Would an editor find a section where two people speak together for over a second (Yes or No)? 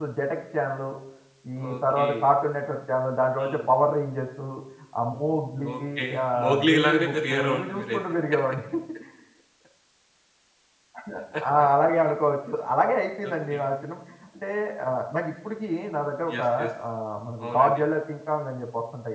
Yes